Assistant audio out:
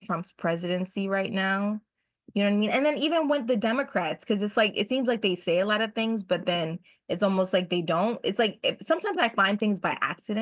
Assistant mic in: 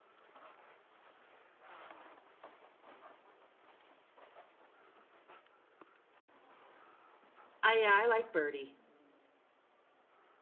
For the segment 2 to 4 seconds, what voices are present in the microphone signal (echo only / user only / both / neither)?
neither